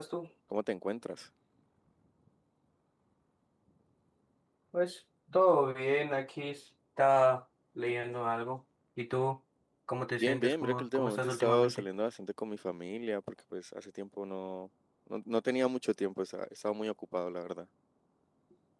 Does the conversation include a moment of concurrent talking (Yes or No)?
Yes